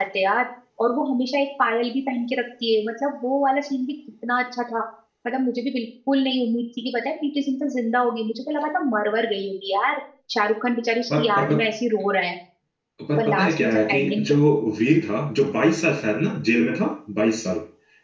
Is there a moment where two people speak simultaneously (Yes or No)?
Yes